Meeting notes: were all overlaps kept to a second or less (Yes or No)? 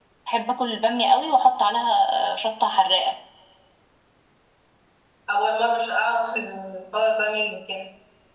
Yes